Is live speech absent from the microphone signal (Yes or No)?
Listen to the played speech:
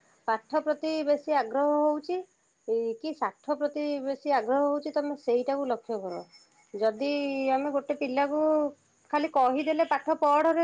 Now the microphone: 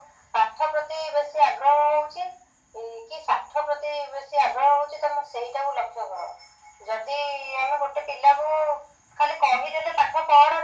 Yes